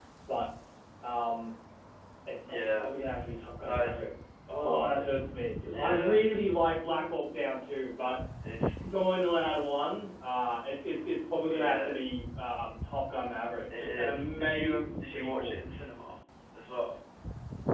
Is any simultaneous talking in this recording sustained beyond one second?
Yes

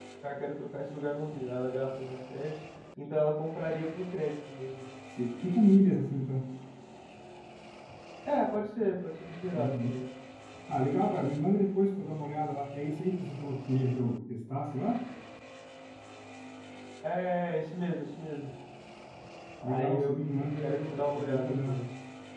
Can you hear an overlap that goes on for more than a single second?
Yes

